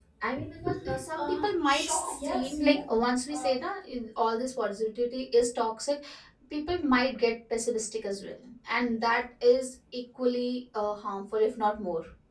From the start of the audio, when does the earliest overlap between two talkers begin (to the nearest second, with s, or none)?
1 s